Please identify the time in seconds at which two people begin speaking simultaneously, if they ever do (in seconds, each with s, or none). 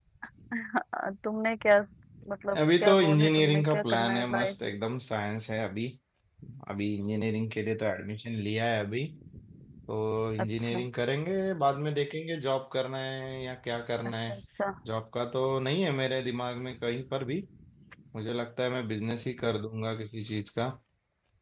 2.8 s